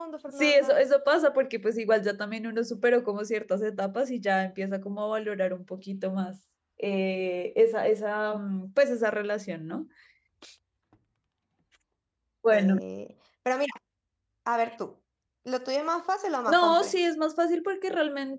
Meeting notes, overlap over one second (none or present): none